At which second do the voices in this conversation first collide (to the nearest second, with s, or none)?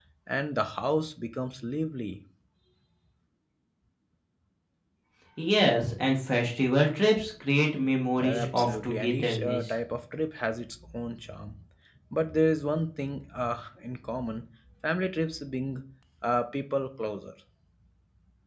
8 s